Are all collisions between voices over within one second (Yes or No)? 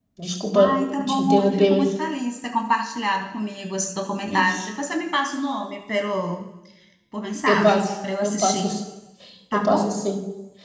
No